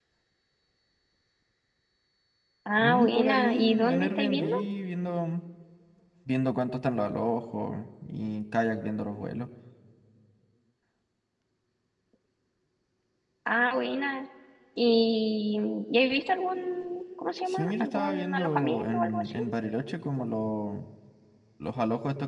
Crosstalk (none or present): present